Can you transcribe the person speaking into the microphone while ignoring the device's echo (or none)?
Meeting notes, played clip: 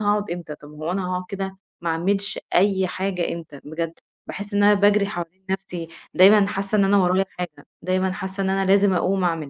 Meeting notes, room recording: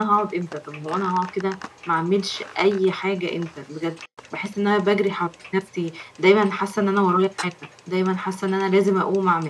none